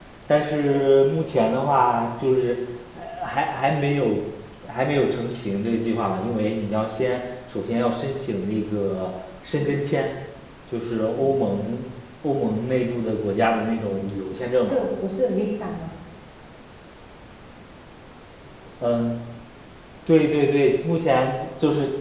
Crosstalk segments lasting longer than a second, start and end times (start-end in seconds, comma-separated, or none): none